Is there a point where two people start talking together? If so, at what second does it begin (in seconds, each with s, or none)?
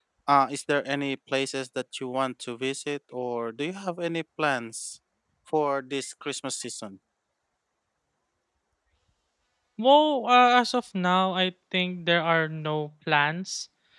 none